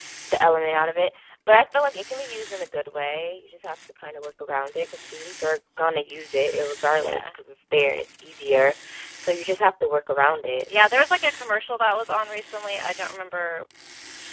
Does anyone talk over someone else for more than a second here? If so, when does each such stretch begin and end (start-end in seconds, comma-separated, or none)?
none